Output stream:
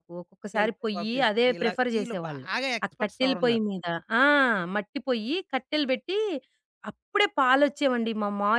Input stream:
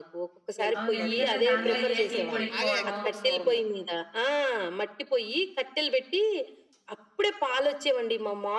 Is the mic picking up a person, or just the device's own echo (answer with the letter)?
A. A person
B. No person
A